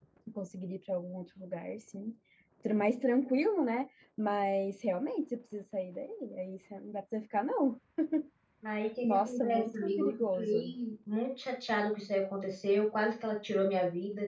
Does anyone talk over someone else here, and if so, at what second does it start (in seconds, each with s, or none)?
9.0 s